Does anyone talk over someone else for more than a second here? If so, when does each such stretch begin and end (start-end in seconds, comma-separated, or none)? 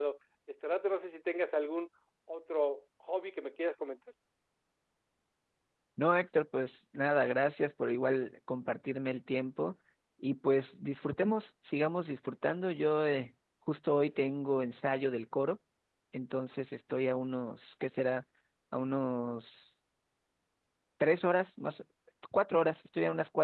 none